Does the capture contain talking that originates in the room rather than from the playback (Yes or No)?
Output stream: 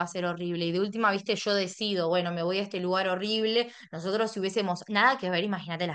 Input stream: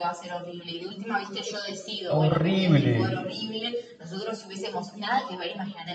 Yes